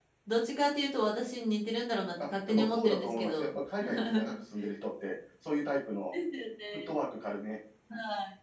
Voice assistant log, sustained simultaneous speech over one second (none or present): present